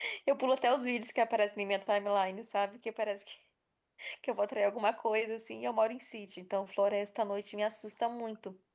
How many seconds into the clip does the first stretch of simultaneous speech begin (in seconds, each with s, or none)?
none